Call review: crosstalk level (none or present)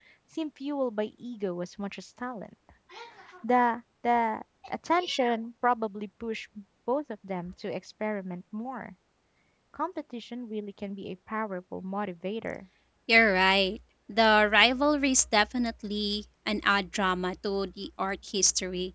none